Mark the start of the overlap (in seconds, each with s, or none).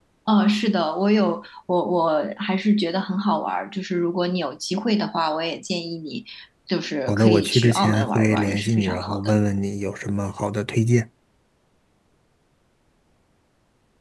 7.1 s